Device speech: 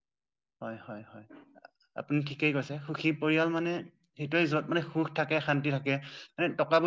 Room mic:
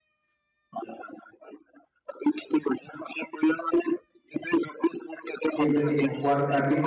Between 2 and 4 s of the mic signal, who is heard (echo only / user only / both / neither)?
echo only